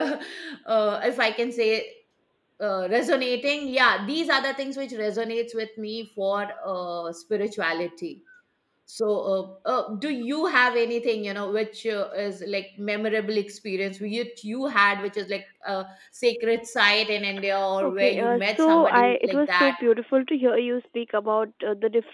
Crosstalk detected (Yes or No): Yes